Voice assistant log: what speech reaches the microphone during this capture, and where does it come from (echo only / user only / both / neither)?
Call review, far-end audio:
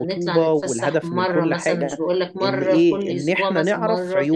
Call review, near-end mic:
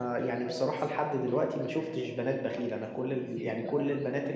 both